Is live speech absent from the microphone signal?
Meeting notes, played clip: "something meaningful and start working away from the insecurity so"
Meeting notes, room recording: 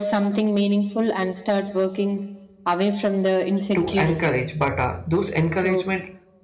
No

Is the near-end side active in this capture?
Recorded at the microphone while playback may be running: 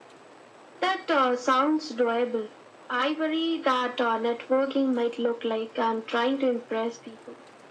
No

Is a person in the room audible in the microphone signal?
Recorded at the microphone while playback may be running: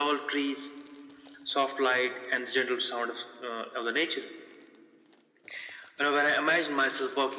No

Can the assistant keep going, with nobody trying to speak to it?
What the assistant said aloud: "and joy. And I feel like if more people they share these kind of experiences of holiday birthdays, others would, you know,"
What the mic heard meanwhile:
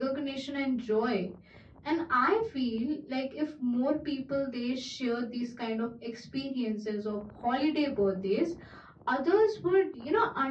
Yes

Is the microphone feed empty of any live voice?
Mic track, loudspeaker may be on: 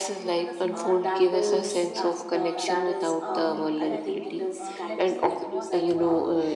No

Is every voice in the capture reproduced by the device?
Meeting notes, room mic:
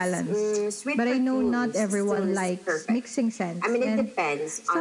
Yes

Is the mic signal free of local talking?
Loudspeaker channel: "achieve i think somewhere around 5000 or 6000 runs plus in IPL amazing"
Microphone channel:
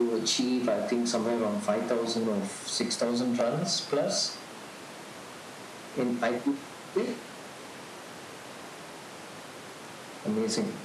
Yes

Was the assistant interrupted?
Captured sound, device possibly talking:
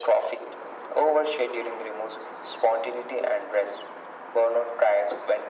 No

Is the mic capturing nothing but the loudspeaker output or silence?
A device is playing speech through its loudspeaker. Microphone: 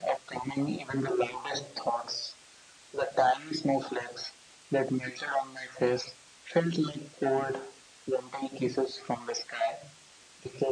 Yes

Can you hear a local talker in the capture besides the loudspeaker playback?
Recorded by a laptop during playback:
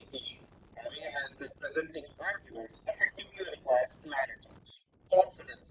No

